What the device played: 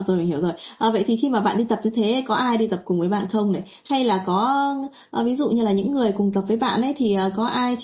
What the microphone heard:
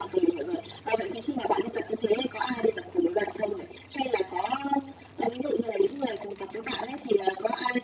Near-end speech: none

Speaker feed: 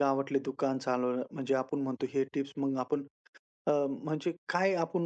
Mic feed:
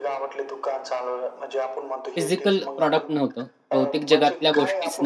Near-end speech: present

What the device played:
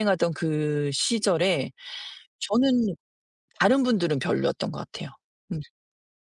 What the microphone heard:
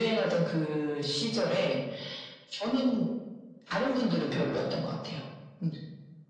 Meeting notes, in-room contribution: none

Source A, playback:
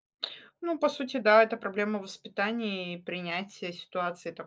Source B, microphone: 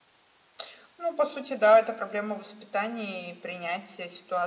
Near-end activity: none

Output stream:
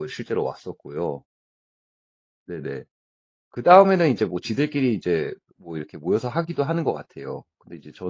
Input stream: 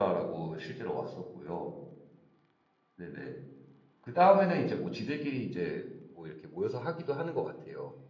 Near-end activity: none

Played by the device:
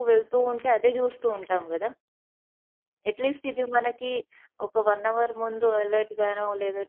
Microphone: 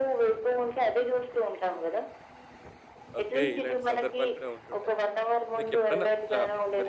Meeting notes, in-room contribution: present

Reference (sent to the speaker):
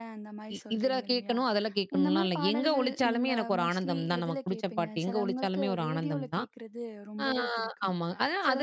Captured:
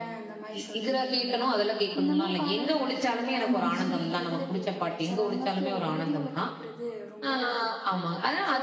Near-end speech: present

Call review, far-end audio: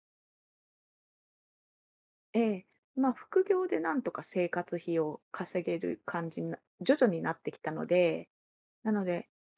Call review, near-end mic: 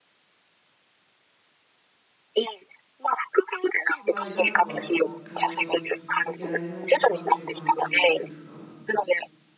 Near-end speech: present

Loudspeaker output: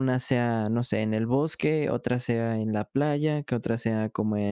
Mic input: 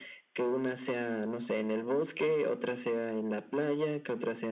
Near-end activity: none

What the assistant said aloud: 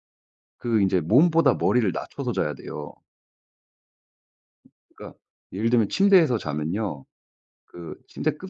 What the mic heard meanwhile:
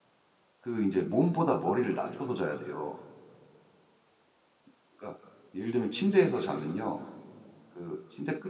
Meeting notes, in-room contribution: none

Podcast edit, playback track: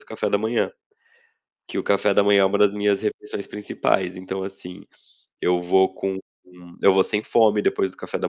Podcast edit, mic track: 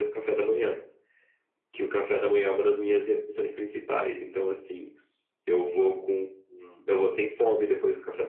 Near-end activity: none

